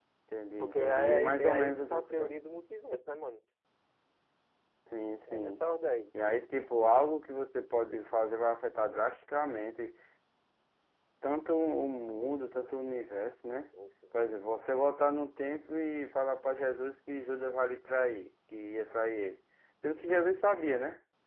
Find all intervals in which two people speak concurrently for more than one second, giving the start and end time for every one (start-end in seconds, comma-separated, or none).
0.6-2.3